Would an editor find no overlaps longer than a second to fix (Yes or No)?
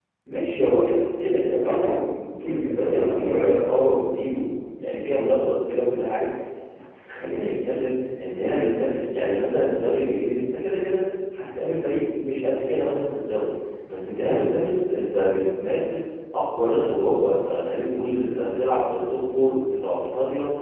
No